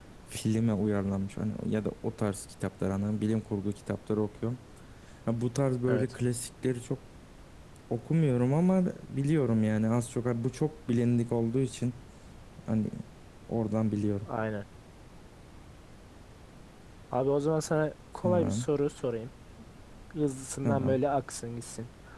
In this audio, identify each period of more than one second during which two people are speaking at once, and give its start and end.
none

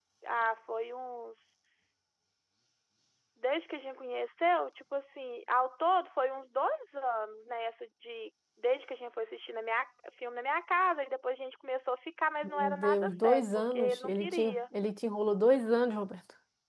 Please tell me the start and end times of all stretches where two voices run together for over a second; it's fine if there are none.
12.4-14.6

